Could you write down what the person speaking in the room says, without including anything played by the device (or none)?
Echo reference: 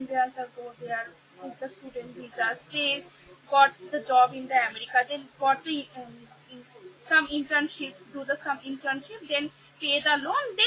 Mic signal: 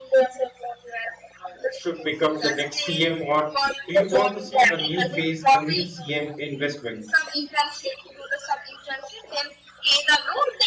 should become the next CM, or do you want to see a new phase, a new CM investment?